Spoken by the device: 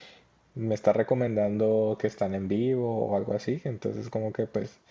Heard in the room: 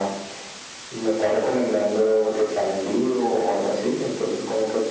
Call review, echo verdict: present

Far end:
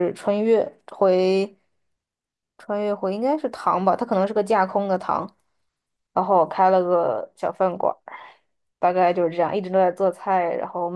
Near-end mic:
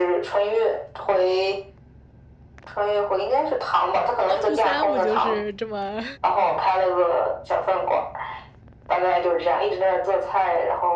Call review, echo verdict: present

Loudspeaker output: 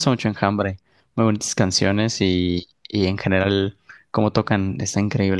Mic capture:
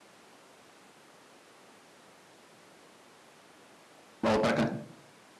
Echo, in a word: none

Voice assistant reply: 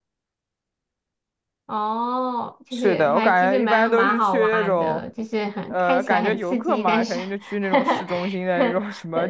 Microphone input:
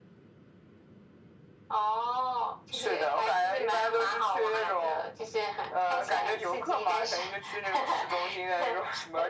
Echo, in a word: present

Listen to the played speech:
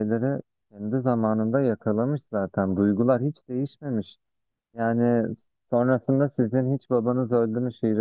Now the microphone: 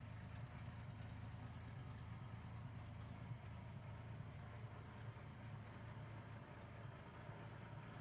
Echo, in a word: none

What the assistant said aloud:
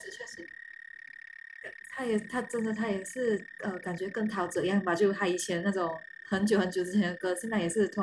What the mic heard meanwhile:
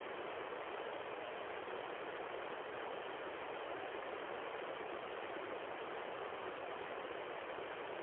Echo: none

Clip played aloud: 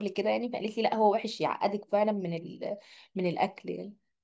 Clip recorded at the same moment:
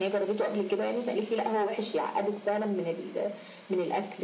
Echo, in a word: present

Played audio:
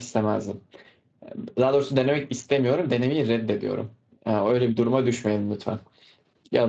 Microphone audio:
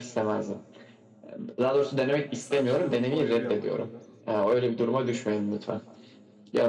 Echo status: present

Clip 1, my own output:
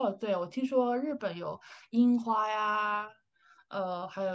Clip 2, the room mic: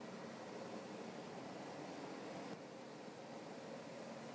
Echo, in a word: none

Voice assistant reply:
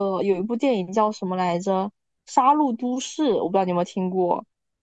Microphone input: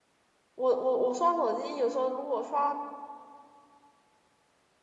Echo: none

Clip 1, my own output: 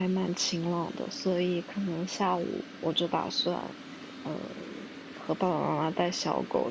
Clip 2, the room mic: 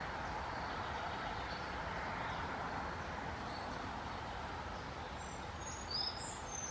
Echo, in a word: none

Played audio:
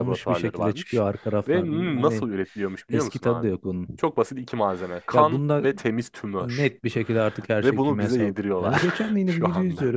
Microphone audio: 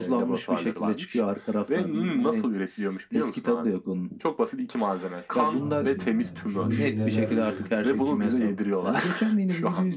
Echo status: present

